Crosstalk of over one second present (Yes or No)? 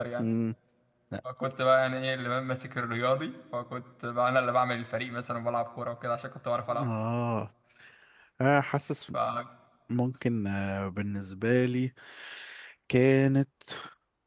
No